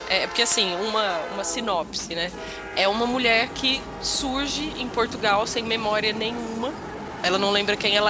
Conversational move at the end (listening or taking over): listening